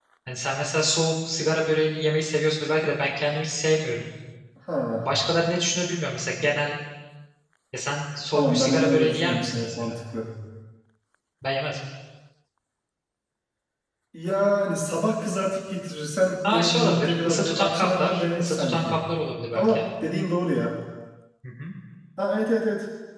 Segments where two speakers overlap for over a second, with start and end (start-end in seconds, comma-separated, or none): 8.3-10.0, 16.5-19.0